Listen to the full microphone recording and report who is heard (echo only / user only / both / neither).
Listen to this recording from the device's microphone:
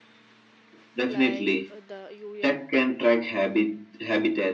both